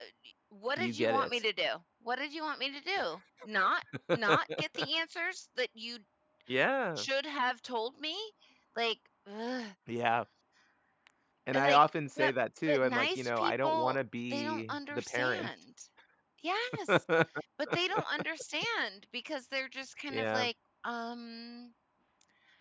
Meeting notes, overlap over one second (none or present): present